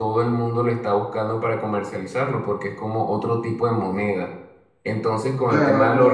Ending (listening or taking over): listening